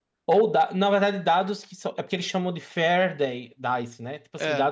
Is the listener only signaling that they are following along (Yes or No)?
Yes